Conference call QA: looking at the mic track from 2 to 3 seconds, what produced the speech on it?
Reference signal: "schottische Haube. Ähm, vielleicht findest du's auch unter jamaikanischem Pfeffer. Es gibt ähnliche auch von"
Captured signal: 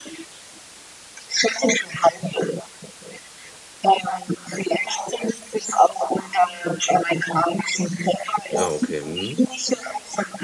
echo only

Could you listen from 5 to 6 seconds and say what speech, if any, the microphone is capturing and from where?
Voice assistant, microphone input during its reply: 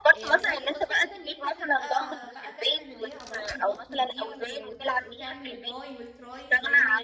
both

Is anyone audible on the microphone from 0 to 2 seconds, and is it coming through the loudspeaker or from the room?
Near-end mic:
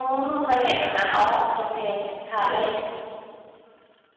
user only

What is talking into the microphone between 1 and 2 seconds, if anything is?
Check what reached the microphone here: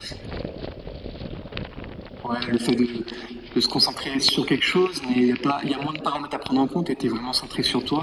neither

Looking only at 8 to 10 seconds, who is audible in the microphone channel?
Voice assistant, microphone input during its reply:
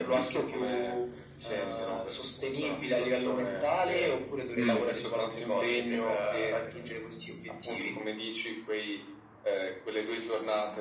echo only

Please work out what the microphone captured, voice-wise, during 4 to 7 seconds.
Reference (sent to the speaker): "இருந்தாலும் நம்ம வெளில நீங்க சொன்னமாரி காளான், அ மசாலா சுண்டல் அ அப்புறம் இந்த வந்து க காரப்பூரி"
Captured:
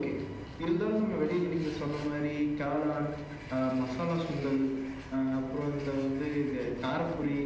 echo only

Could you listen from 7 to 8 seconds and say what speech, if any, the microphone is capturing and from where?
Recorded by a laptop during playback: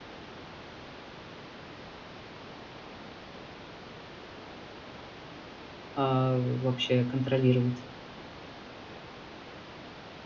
user only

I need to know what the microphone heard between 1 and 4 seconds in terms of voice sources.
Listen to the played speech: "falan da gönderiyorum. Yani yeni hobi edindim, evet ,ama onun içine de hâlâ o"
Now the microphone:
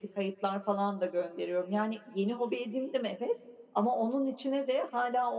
echo only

